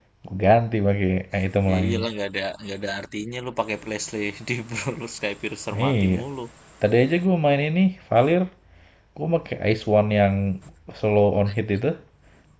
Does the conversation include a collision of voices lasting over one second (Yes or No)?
No